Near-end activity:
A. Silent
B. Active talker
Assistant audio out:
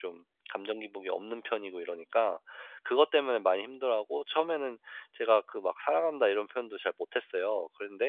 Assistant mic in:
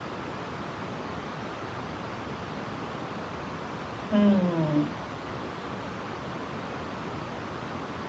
B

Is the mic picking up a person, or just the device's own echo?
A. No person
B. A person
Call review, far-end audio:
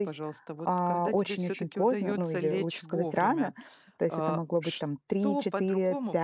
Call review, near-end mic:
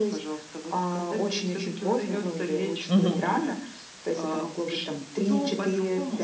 B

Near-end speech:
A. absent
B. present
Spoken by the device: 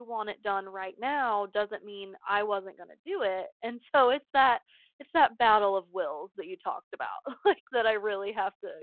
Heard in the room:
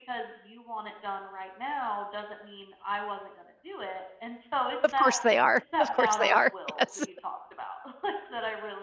B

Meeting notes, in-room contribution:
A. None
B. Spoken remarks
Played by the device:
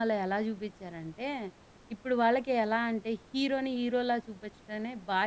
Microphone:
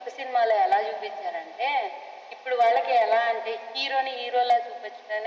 A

